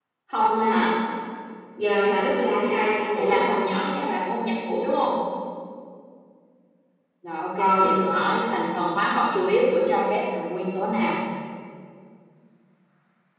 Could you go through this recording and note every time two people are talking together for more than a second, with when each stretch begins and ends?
none

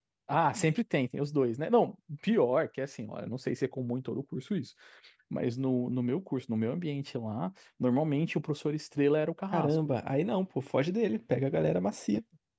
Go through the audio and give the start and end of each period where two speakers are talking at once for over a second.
none

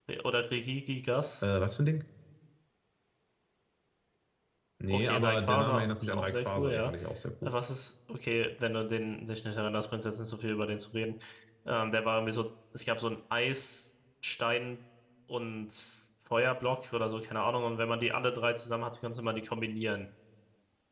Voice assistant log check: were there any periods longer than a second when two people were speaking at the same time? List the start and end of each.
4.9-6.9

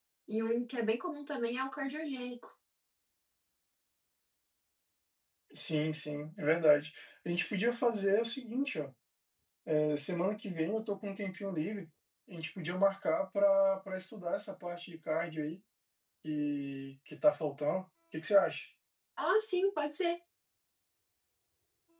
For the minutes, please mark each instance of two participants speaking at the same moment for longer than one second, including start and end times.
none

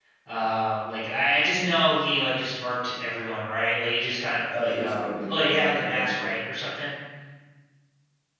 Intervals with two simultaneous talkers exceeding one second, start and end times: 4.5-6.3

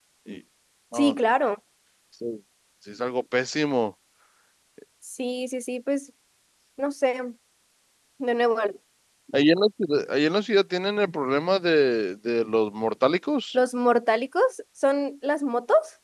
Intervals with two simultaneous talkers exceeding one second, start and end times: none

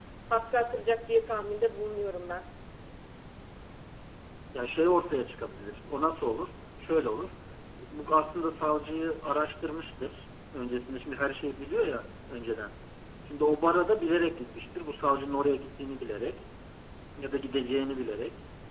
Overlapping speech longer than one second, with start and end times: none

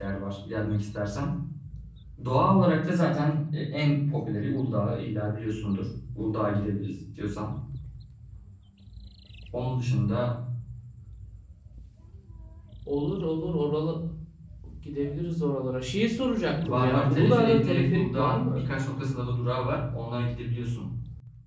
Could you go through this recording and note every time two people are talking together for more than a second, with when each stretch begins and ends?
16.7-18.7

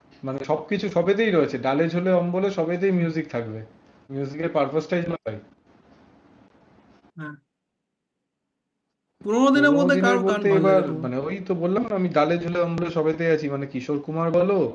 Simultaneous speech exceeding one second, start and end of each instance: 9.6-11.1

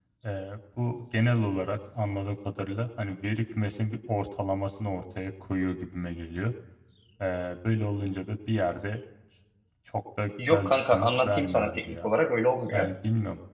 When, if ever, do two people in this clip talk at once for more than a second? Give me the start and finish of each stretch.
10.5-12.1

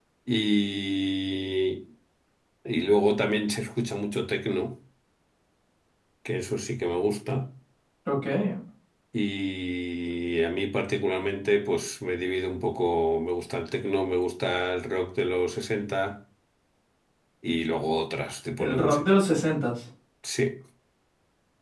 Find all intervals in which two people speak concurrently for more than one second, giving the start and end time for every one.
none

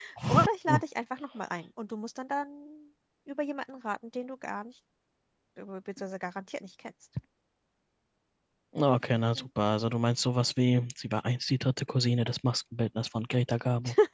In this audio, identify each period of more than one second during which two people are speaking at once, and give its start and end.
none

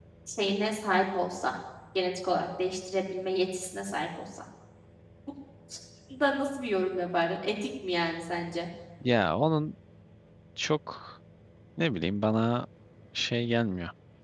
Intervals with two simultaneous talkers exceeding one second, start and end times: none

